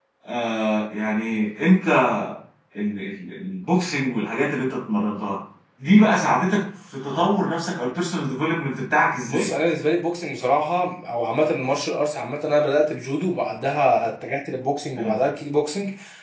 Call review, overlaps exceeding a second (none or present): none